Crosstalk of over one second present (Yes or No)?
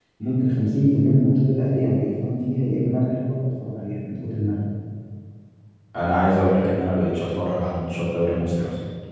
No